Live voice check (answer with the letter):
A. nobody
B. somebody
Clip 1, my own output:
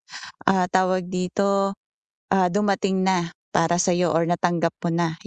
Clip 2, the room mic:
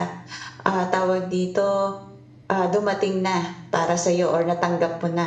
A